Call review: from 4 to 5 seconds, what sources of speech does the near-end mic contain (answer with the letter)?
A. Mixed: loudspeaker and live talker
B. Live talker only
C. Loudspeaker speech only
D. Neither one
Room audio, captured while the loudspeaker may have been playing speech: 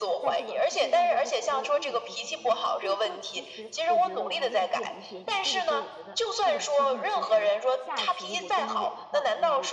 A